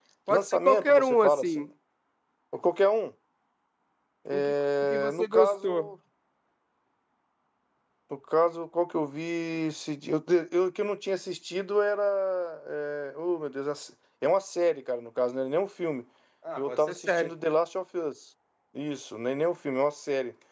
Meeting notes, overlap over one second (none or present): present